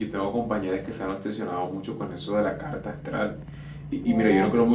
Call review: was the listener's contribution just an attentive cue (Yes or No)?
Yes